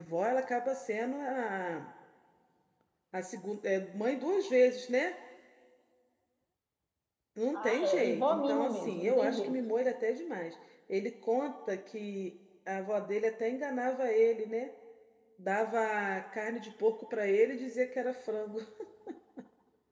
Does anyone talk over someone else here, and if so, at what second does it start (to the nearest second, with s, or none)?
8 s